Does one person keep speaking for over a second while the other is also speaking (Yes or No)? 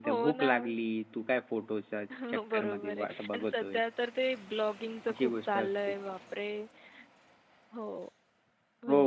Yes